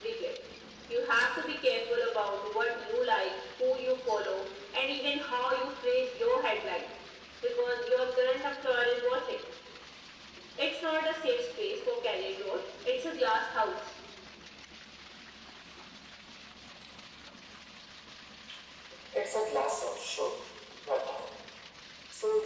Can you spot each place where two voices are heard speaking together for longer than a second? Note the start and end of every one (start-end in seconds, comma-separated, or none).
none